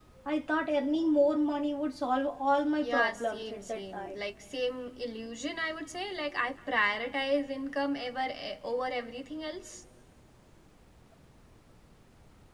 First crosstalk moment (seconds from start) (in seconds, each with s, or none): 2.8 s